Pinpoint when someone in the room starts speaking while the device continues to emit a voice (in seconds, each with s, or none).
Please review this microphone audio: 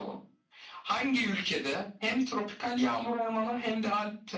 none